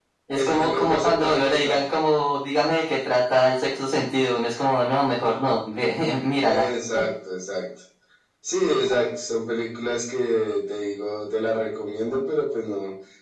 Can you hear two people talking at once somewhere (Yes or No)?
Yes